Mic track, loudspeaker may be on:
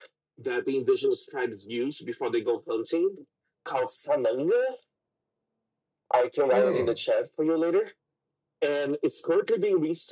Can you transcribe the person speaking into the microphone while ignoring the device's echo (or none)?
Hmm.